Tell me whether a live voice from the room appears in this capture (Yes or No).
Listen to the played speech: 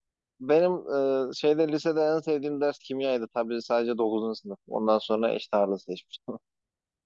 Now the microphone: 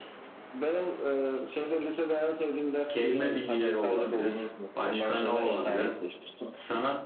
Yes